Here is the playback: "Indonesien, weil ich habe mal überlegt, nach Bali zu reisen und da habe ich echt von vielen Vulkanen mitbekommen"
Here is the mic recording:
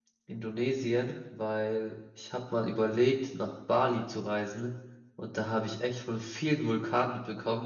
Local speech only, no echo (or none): none